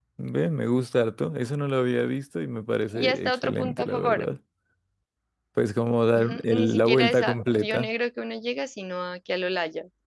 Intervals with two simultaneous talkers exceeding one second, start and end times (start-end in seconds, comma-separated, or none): 2.9-4.3, 6.1-7.9